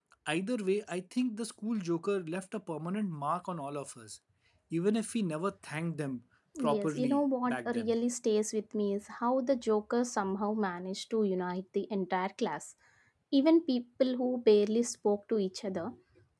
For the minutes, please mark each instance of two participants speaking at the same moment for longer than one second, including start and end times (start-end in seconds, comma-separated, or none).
6.6-7.9